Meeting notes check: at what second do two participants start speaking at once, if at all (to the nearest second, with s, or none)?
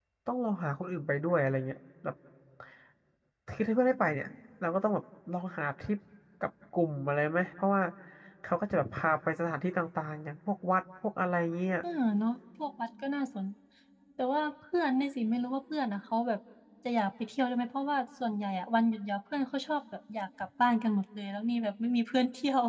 none